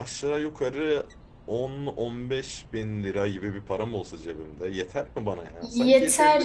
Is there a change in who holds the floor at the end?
Yes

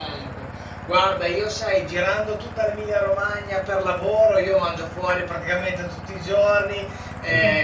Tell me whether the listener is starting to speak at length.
No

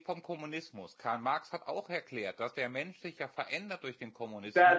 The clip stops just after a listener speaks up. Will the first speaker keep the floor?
No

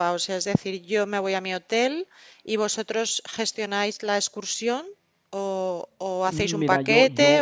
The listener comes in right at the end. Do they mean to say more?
Yes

